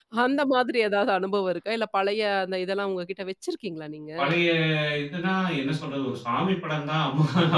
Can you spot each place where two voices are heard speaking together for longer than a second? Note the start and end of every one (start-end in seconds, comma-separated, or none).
none